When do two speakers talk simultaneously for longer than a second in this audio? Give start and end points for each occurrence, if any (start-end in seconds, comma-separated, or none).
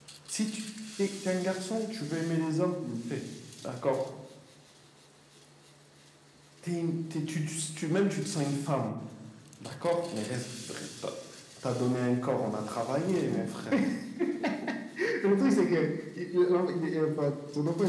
none